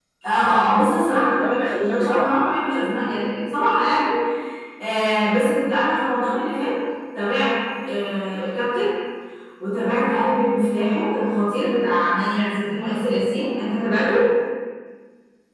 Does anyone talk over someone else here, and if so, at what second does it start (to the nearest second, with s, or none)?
1 s